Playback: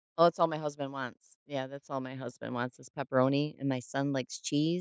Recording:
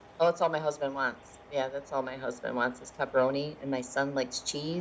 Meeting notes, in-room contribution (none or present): none